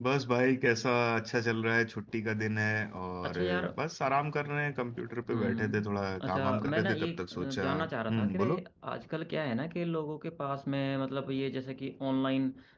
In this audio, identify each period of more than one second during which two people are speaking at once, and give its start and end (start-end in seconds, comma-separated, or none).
5.3-8.6